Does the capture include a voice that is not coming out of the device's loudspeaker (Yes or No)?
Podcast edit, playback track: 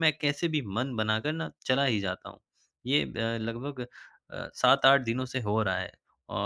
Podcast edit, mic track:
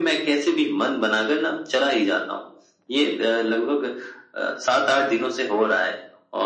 No